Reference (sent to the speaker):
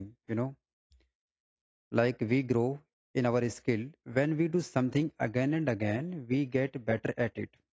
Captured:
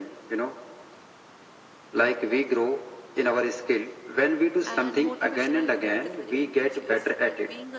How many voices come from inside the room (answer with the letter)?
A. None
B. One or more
B